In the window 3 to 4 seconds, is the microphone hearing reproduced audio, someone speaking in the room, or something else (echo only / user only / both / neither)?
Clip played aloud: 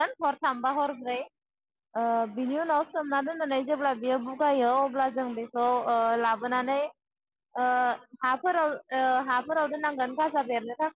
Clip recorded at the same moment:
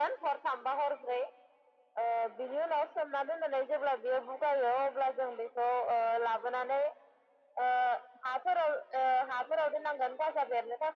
echo only